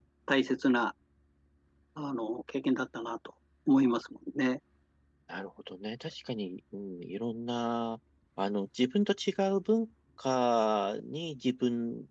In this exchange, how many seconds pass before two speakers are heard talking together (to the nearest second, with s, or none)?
none